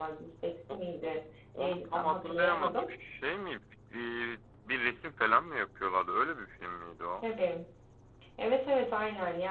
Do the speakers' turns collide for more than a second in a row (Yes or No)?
Yes